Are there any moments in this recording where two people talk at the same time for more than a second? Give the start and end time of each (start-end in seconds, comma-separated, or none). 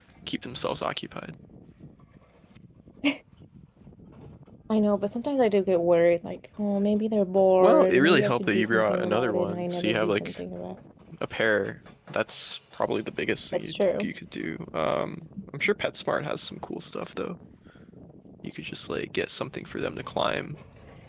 7.6-10.3